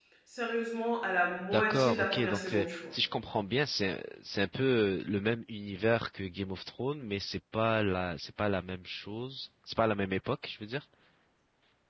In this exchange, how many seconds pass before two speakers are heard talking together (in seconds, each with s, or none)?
1.5 s